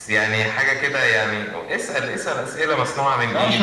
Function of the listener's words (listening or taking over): taking over